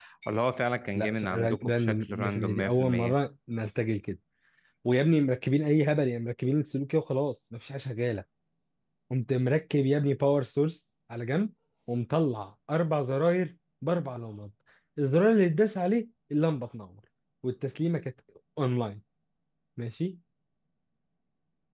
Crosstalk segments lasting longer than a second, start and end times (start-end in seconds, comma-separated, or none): 1.0-3.1